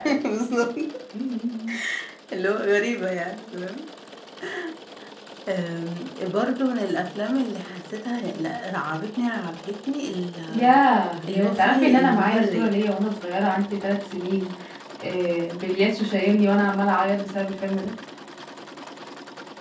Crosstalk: present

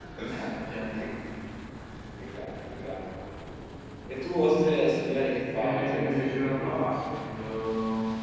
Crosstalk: present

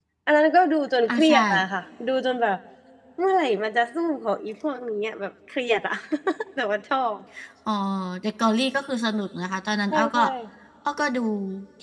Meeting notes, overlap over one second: none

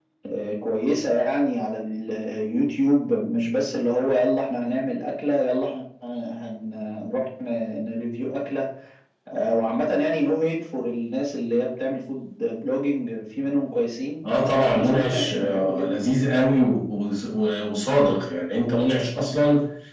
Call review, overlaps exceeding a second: present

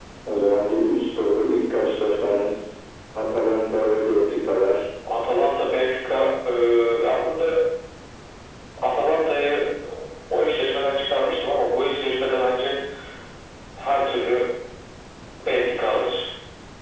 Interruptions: none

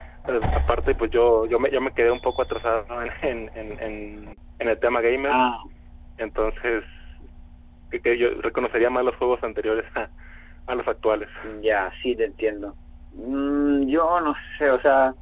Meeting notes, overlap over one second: none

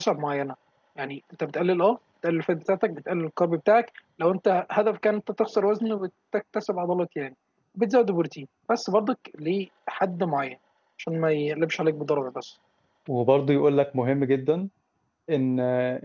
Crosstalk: none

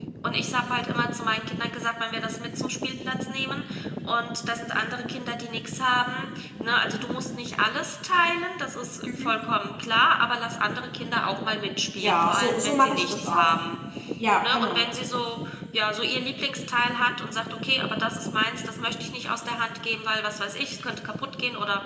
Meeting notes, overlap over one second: present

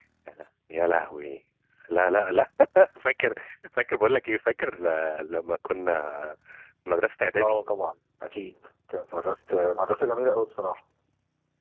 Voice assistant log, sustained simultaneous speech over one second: none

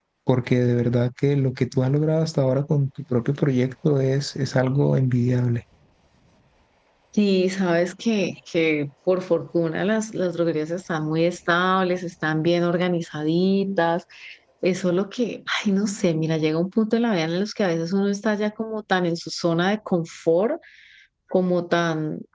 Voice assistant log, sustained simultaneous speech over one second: none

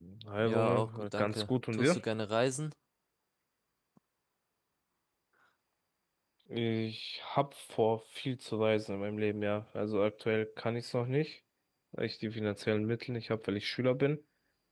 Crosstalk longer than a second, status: present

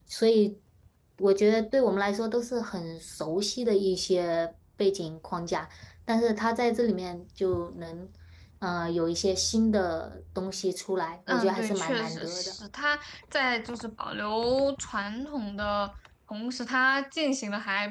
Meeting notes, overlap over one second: present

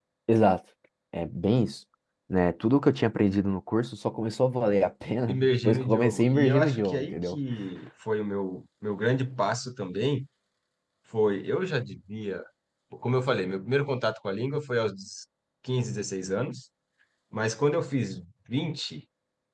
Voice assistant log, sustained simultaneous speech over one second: present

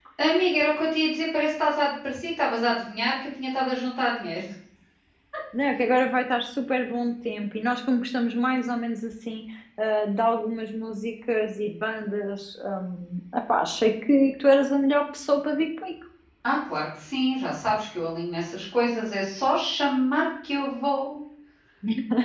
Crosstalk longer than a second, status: none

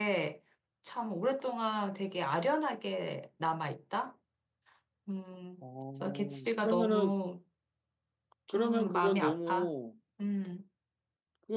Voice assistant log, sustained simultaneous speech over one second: present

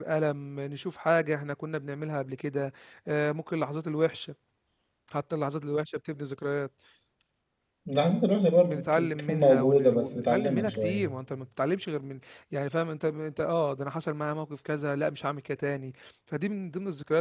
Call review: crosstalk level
present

